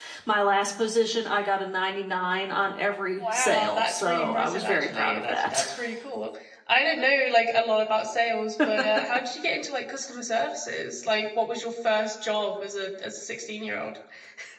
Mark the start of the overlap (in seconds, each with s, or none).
3.2 s